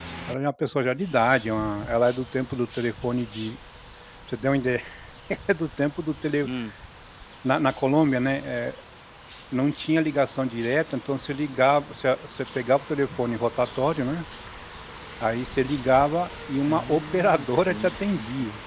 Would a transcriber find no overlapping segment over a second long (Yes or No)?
No